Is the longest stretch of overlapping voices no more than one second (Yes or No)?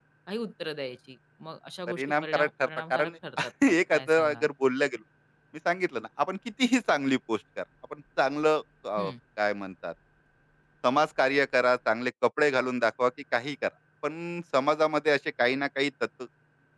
No